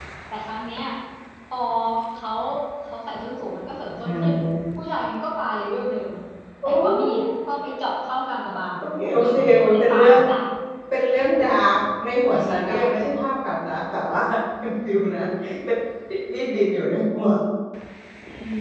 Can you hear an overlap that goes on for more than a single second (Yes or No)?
Yes